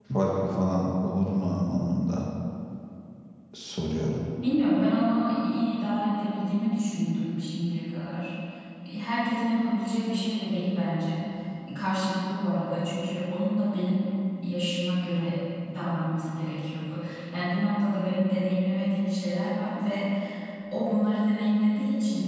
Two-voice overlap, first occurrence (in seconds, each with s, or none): none